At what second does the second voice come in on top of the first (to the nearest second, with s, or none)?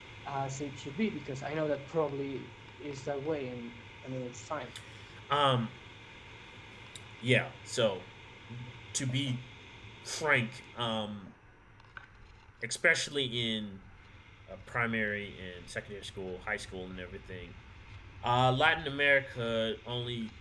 none